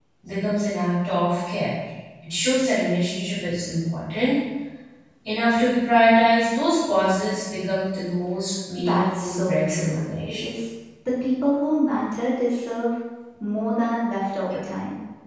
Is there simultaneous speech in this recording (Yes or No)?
Yes